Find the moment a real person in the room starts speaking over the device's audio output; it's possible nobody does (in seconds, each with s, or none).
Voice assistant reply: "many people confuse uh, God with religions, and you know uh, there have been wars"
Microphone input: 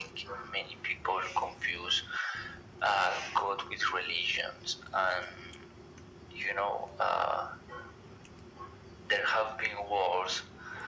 none